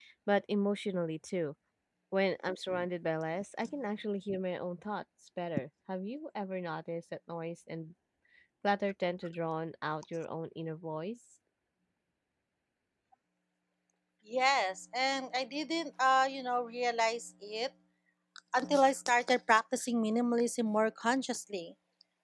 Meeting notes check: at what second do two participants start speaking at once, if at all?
none

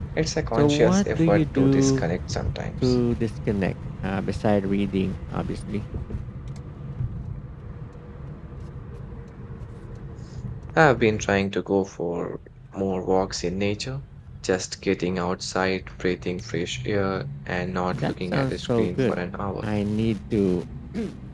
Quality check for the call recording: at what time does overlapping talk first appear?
0.6 s

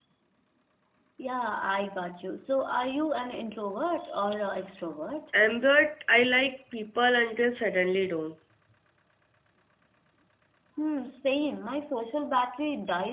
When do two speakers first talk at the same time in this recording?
none

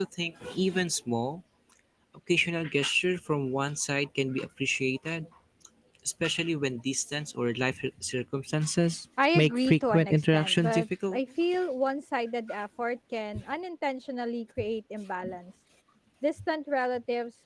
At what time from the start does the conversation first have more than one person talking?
9.2 s

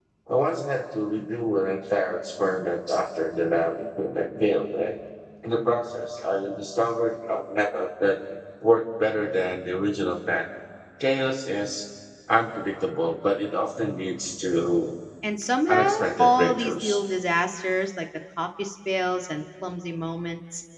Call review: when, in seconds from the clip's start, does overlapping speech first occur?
15.7 s

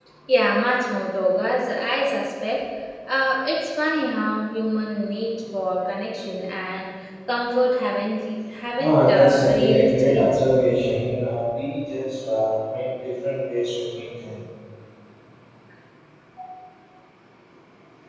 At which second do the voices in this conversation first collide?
8.8 s

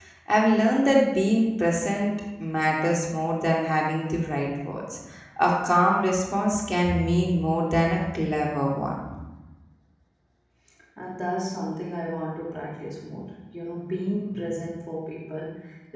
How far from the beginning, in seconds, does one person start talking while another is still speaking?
none

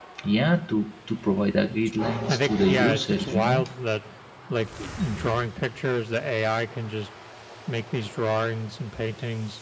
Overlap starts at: 2.3 s

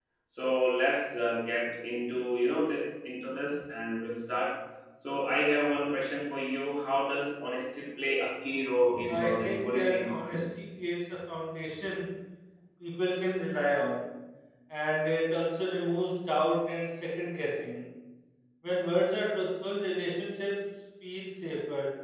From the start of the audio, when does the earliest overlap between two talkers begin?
9.1 s

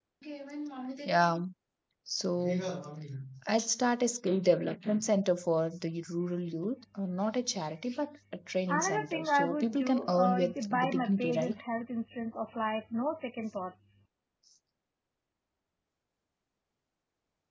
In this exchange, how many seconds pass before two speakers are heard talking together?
8.7 s

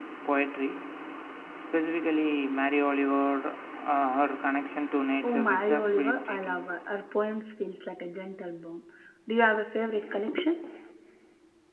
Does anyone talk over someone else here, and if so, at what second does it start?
5.2 s

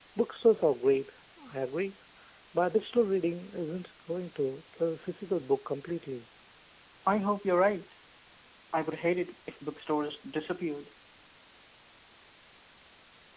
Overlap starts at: none

